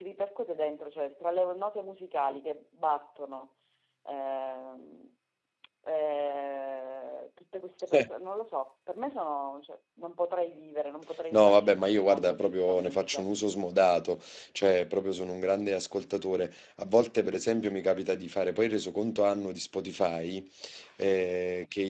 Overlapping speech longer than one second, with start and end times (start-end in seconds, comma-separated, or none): 11.3-13.2